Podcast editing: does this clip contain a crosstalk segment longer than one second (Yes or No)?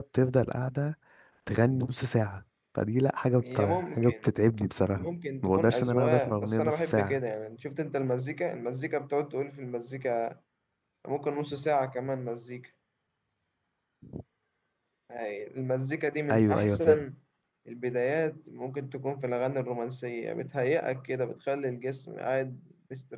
Yes